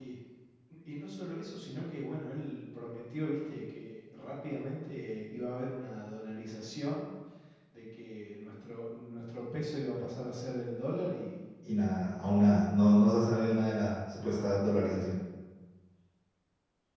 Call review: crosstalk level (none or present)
none